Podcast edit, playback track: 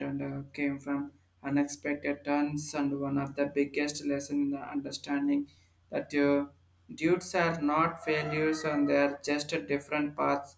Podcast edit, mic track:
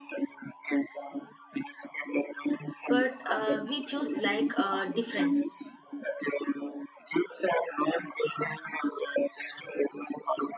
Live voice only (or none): but uh, we choose like uh, differently.